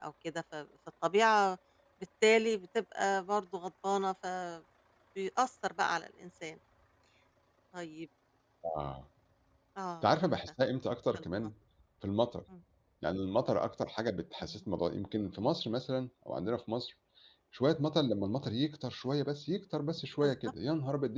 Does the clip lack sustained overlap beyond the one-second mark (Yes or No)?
Yes